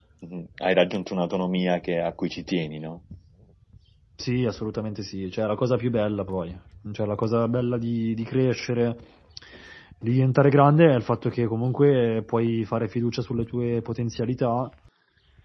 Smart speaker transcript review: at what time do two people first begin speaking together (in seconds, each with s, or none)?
none